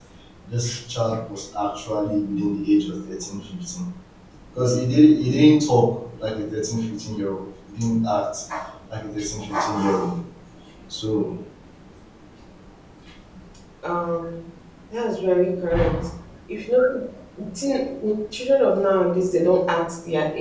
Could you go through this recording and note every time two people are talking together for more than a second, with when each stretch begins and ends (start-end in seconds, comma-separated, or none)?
none